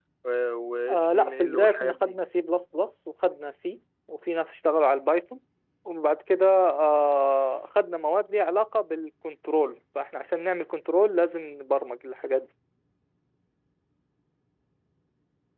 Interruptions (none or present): present